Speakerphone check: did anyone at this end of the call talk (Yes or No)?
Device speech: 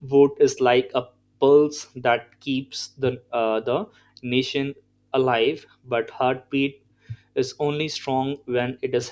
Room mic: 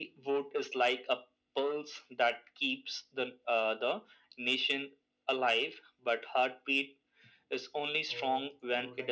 Yes